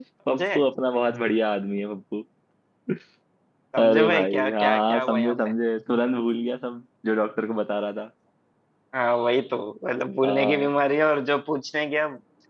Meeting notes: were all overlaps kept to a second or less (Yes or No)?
No